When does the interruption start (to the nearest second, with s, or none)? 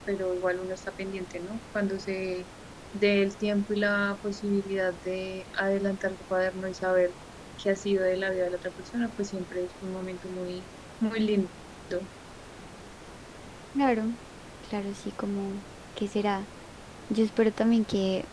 none